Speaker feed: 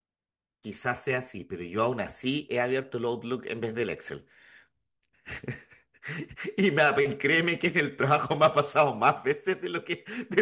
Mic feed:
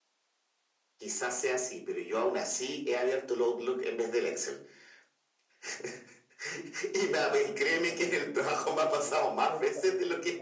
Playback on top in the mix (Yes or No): Yes